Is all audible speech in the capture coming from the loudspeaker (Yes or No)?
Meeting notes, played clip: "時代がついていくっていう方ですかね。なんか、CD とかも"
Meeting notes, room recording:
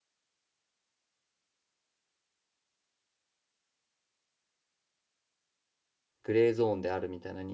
No